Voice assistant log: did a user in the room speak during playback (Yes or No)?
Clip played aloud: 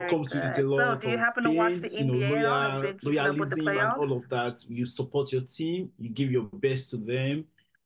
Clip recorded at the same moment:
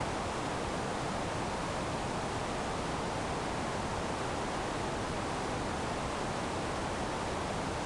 No